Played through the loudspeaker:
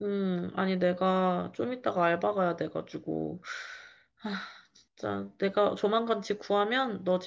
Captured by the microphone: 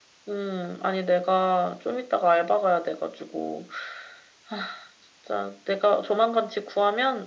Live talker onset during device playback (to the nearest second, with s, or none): none